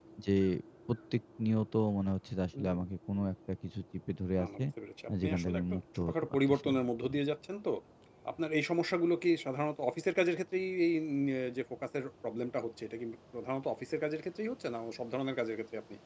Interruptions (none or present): present